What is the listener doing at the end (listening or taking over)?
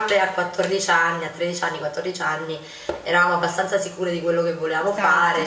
listening